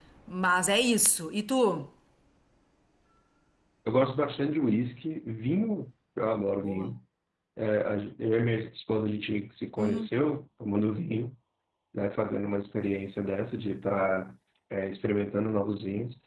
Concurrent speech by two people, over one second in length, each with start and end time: none

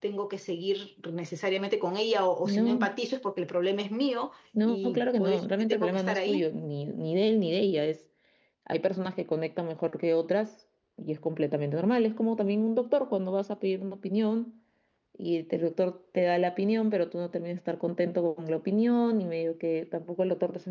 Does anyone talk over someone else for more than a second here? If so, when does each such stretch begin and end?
4.7-6.4

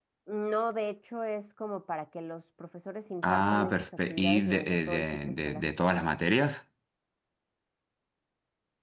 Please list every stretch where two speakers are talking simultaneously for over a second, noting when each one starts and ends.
3.2-5.6

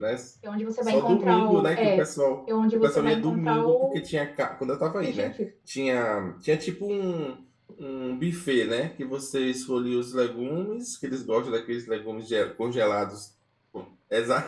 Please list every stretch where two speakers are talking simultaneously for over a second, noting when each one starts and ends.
0.8-2.0, 2.7-4.1

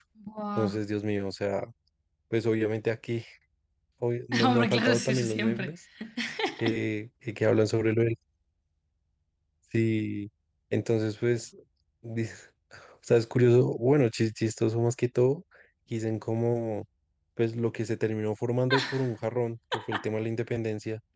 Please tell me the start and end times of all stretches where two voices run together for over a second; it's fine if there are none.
4.4-5.7

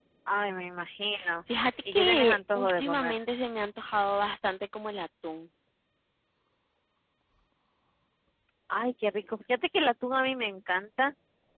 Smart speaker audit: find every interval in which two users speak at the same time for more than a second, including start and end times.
1.9-3.2

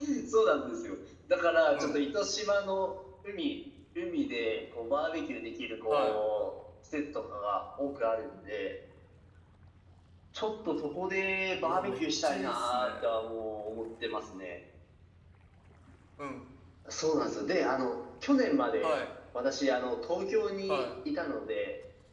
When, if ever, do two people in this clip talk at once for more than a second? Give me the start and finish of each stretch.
11.6-13.1

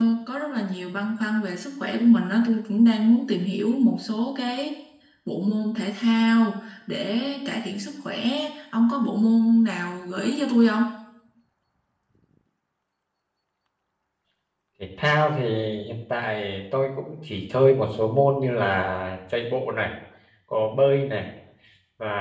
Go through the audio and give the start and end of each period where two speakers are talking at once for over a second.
none

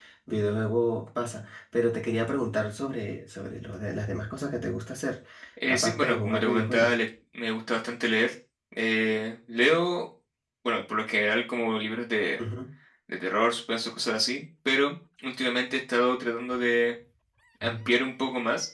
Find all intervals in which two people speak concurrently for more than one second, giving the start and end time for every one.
5.7-7.0

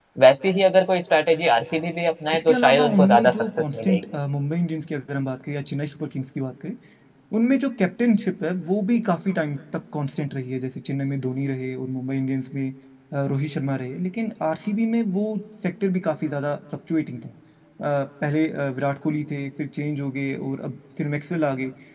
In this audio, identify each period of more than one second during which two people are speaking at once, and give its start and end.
2.3-4.0

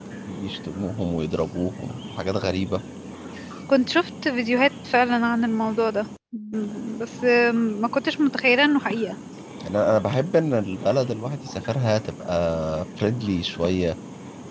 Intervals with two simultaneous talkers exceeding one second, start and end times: none

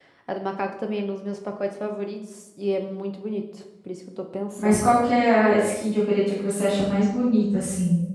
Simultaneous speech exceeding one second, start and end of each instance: none

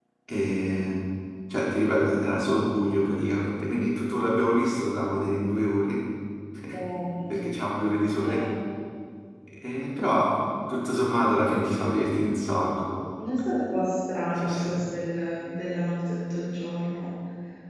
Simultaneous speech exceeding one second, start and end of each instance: none

